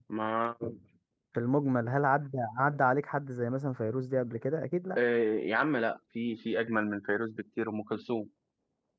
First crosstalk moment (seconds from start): none

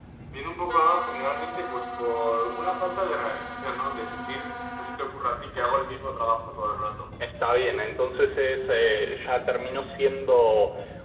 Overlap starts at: none

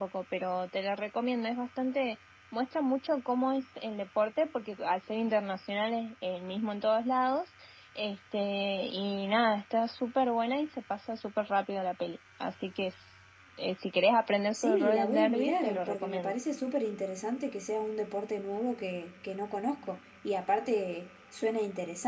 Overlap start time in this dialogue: 14.5 s

